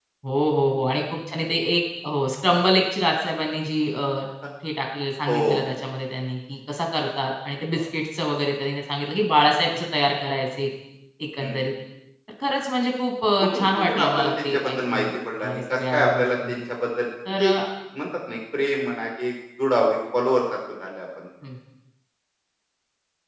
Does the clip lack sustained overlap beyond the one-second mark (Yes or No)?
No